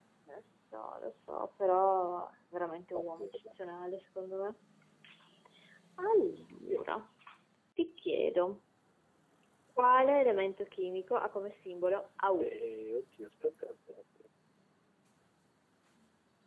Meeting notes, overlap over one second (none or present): none